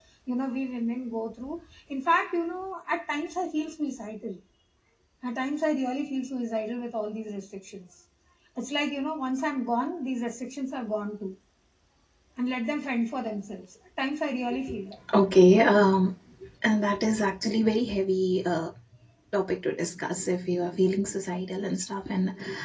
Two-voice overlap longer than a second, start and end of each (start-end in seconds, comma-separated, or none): none